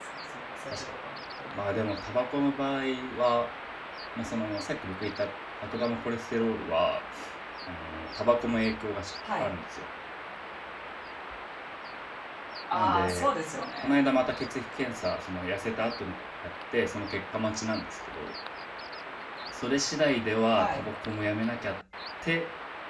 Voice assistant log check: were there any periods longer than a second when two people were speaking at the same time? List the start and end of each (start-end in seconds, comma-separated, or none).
12.7-14.0